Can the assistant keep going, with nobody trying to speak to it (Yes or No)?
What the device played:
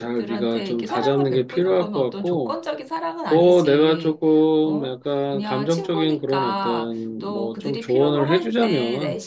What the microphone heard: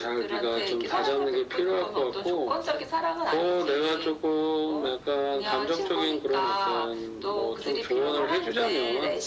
Yes